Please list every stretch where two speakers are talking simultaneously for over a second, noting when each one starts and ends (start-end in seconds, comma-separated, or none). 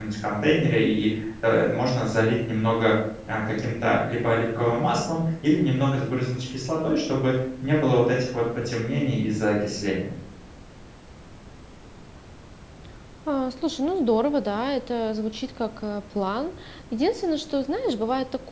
none